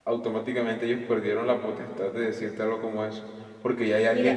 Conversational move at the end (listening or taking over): listening